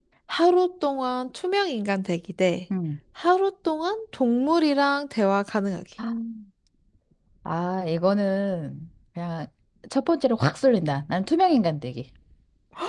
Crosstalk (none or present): none